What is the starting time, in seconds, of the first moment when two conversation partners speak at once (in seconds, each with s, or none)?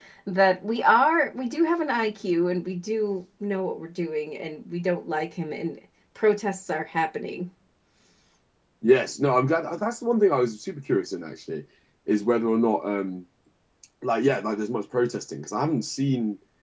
none